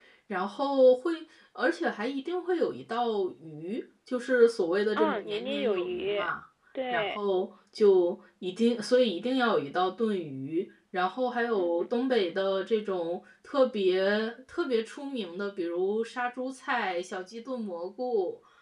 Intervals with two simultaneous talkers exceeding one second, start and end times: 5.0-6.2

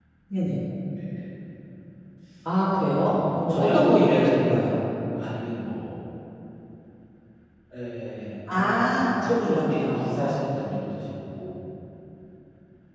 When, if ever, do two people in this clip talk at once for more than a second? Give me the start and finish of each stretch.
2.7-4.8, 8.5-10.6

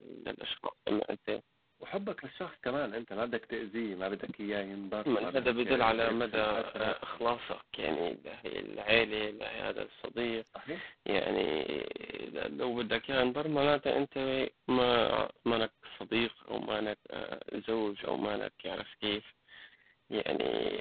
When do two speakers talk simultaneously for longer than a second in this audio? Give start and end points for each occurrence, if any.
5.1-7.2

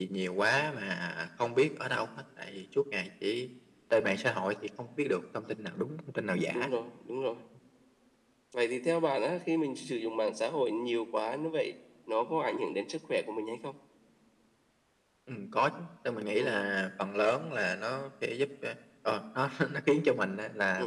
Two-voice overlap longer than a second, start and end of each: none

